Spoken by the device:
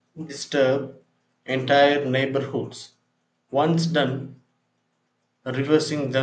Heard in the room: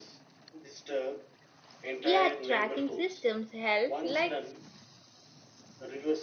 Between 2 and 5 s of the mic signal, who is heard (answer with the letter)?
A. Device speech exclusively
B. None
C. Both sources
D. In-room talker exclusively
C